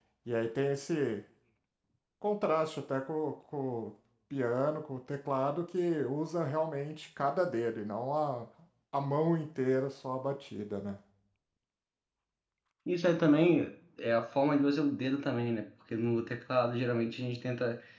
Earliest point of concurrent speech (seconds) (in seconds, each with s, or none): none